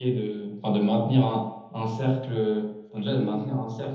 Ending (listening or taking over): listening